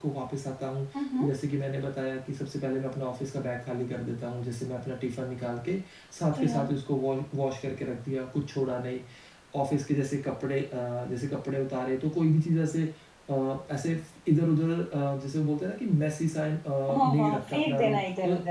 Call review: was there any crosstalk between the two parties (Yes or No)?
Yes